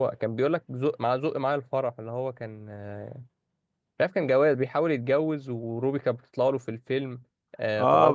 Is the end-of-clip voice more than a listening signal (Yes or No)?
Yes